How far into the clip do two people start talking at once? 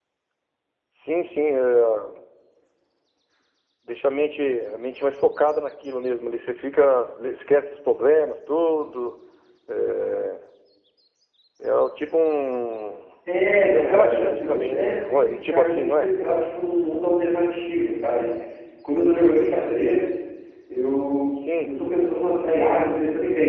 13.6 s

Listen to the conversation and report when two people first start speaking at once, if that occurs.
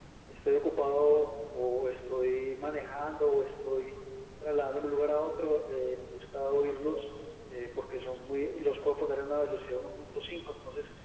none

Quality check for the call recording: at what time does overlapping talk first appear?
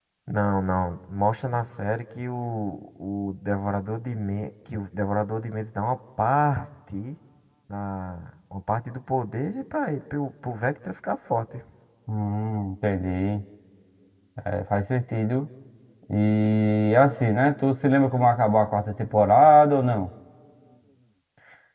none

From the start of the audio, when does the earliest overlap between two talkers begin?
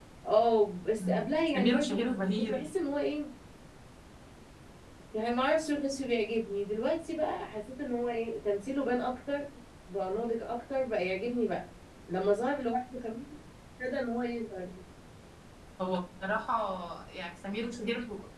1.0 s

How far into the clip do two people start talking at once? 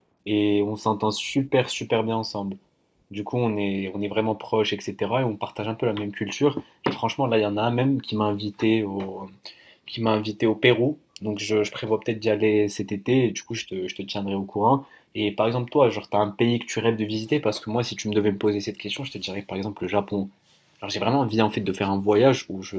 none

